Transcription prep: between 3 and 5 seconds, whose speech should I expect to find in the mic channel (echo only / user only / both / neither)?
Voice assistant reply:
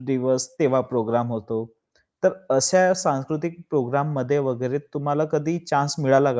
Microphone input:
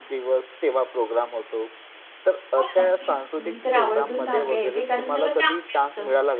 both